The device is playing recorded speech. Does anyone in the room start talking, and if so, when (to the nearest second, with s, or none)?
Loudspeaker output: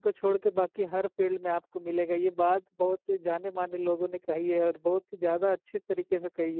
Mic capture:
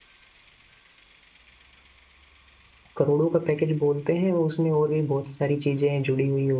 3 s